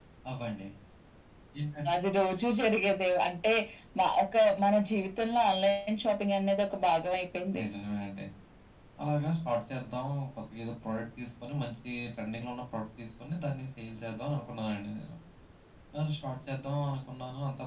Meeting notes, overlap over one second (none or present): none